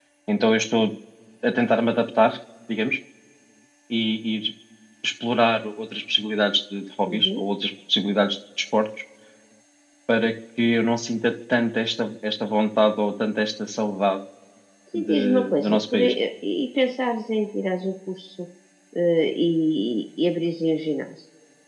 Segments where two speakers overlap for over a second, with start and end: 14.9-16.1

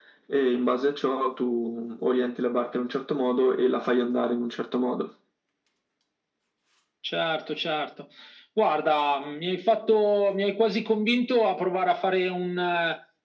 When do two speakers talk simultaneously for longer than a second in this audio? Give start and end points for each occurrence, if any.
none

